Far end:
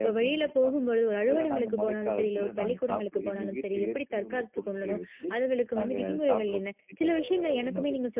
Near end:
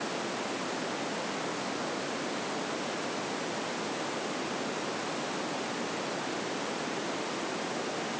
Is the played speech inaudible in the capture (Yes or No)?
Yes